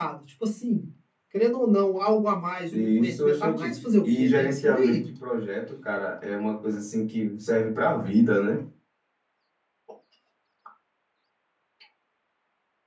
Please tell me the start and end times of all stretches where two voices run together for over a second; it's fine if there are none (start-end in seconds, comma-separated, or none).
2.7-5.0